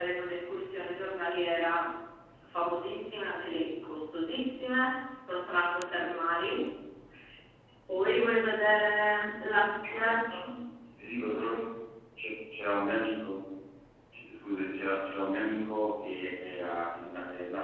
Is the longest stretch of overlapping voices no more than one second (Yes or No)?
Yes